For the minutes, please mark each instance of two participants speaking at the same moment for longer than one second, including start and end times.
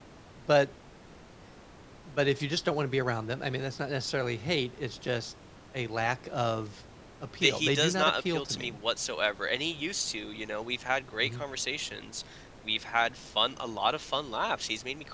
7.4-8.8

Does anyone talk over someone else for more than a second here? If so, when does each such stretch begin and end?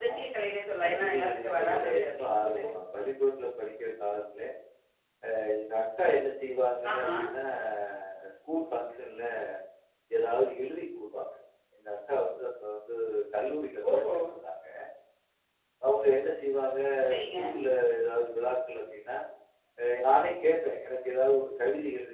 0.8-2.6

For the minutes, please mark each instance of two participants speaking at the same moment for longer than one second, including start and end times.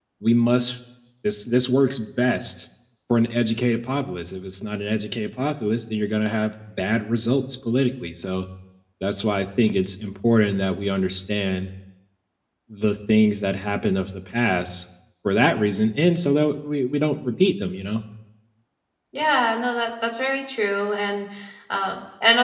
none

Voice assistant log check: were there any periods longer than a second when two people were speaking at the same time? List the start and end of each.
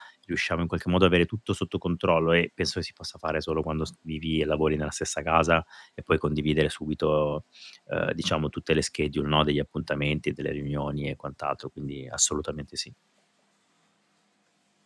none

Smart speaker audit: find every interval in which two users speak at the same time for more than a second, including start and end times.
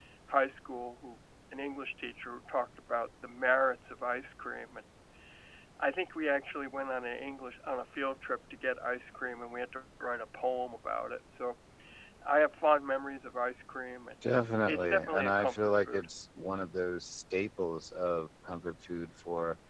14.7-16.1

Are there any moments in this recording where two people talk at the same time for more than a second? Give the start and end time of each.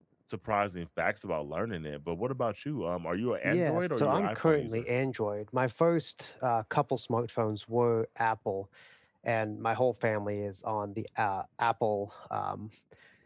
3.4-4.8

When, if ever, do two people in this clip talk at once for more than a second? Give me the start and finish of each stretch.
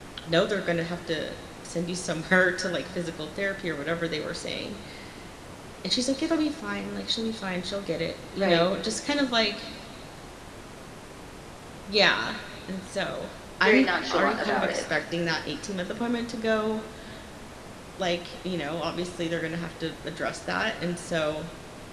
13.6-14.8

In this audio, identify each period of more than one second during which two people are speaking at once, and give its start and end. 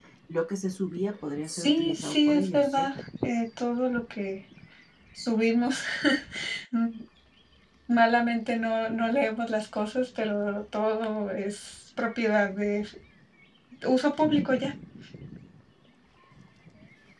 1.4-2.9

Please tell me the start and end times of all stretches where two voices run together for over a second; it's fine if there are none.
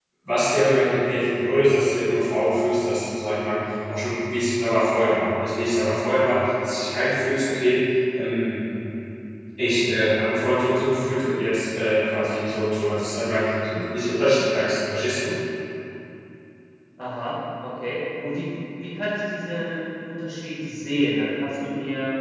none

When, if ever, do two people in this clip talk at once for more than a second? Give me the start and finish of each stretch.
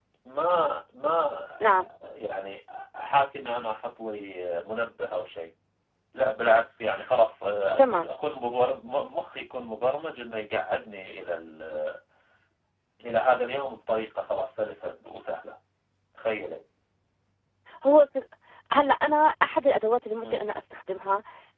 none

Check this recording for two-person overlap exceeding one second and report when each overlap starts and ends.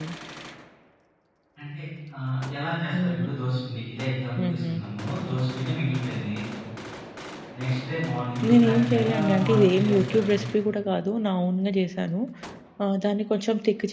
8.5-10.3

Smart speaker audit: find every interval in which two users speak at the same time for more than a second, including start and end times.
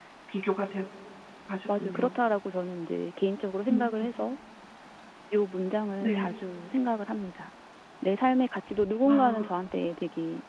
none

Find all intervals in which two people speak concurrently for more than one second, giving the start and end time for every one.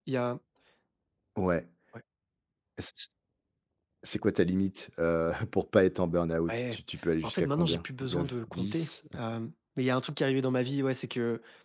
7.2-8.9

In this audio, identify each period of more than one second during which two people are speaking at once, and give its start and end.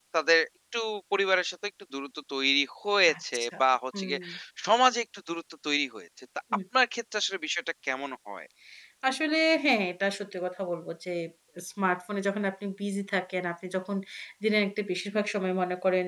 none

